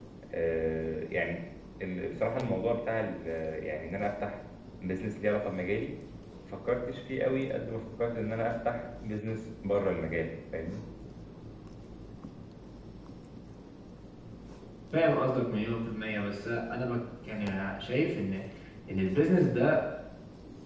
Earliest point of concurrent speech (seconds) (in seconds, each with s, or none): none